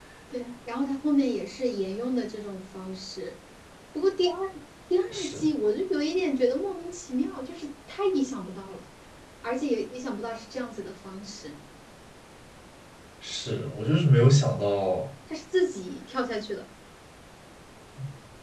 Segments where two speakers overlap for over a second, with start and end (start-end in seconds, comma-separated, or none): none